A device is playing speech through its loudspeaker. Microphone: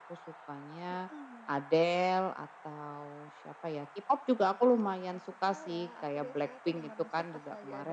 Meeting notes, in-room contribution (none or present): none